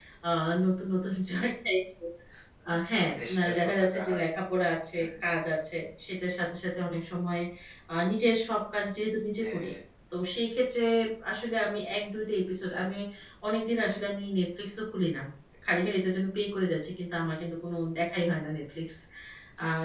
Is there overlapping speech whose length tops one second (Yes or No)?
Yes